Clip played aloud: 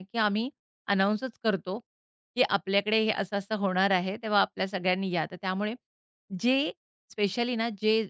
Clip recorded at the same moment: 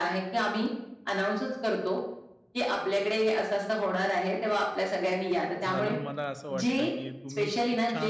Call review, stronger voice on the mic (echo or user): echo